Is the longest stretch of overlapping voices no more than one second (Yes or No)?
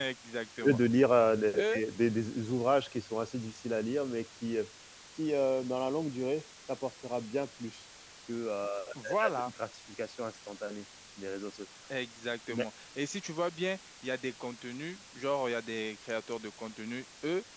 Yes